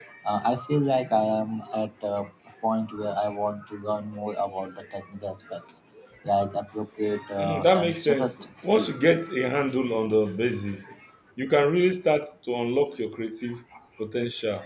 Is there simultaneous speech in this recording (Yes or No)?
Yes